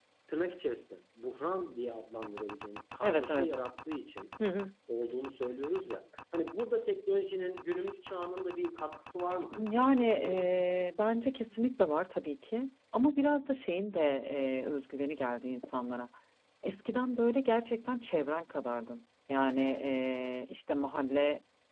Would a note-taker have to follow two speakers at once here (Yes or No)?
Yes